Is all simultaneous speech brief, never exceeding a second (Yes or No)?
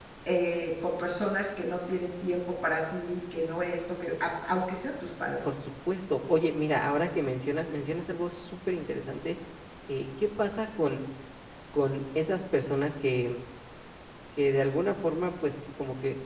Yes